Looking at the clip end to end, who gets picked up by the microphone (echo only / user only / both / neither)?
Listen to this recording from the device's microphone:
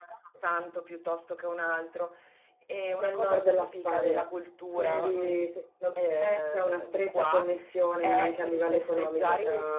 both